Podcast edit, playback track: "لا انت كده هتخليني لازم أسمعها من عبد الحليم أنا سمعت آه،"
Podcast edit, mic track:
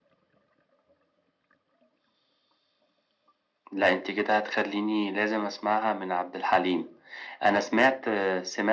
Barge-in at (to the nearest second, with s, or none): none